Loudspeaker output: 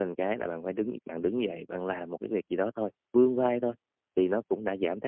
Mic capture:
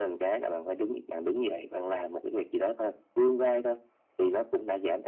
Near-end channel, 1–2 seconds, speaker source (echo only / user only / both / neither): echo only